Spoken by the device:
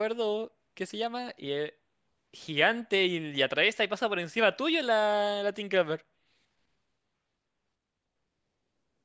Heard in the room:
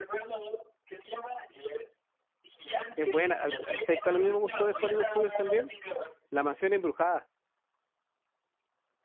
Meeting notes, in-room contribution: present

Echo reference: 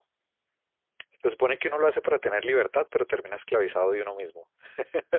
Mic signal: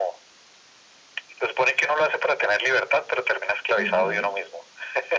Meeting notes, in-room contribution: present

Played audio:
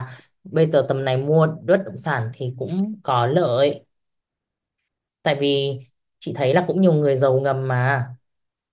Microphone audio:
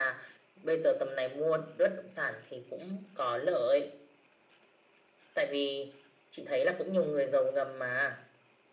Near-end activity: none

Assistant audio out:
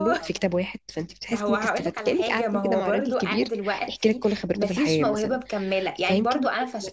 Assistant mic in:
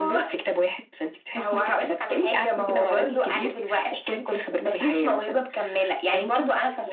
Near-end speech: none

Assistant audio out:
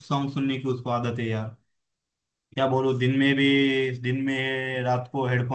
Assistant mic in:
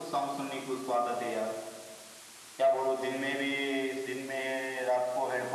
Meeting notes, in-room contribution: none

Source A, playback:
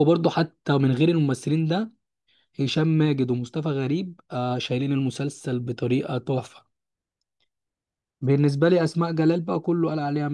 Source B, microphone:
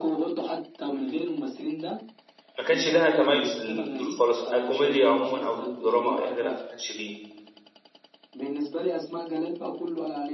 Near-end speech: present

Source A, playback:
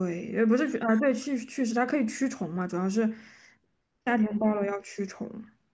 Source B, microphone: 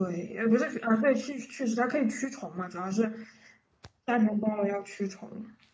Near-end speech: none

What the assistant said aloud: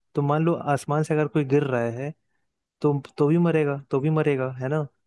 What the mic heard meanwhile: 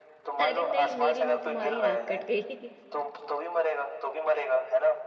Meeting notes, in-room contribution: present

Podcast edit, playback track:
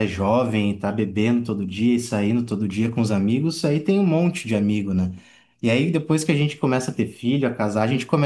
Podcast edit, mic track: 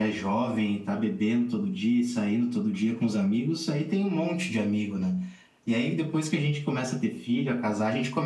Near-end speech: none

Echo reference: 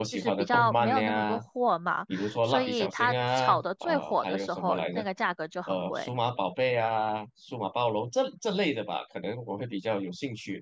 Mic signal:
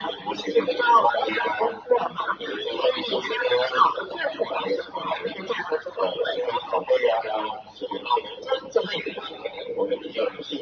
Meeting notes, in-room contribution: none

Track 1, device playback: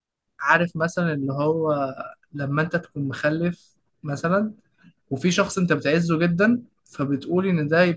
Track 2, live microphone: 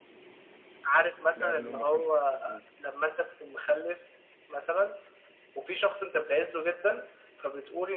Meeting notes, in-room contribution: present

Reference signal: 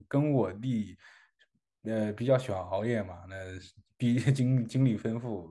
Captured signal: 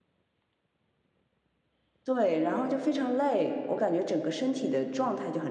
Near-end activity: present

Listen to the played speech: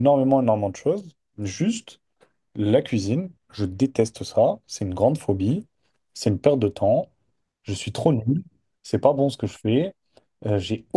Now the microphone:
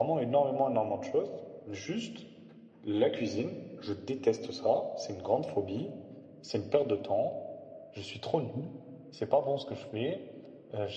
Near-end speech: none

